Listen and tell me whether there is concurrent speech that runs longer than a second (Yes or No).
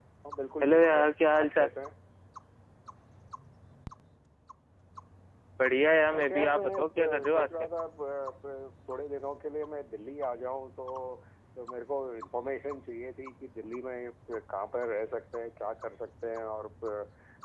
Yes